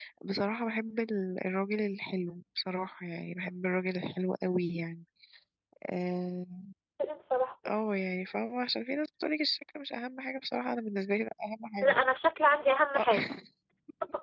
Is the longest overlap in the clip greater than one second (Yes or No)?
No